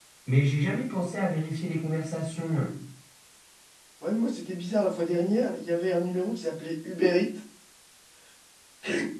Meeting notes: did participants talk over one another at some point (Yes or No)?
No